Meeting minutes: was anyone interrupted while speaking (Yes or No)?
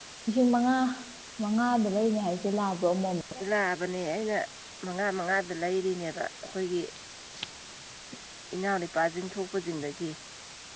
No